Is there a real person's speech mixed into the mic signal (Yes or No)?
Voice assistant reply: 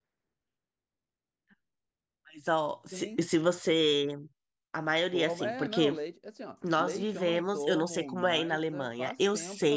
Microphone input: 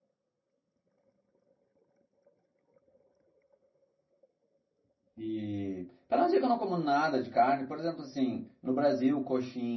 Yes